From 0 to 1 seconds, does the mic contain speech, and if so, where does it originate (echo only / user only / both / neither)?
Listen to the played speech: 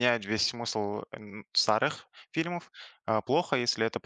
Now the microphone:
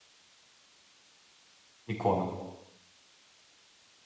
neither